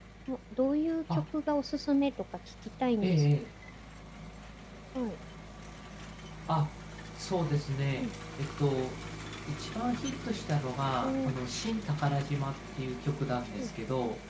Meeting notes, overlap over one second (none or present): none